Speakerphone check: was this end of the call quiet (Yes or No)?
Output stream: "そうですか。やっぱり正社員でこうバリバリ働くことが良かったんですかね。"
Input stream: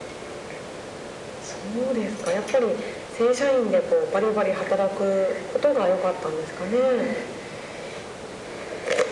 Yes